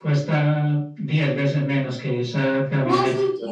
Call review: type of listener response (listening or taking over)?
taking over